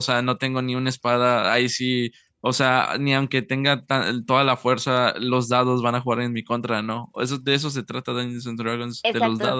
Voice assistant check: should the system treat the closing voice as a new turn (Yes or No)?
Yes